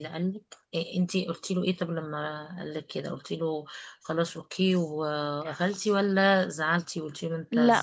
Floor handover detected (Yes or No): Yes